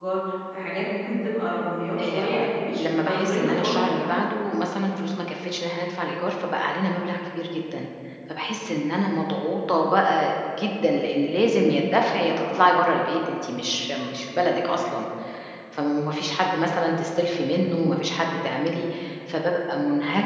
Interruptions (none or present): present